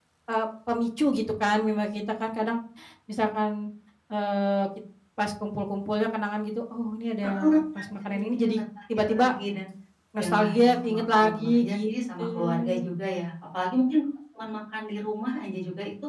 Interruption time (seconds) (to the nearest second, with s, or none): 7 s